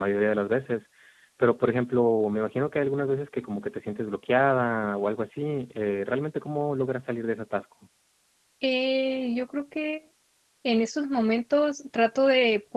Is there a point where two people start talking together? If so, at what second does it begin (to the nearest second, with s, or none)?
none